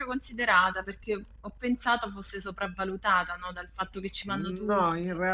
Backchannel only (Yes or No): No